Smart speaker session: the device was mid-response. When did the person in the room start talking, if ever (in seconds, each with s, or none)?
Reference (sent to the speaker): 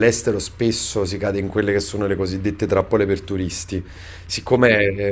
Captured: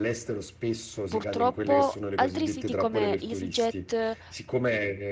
1.1 s